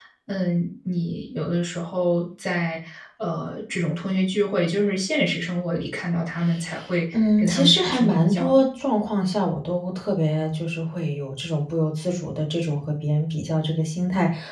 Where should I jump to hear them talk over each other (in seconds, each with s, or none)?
7.1 s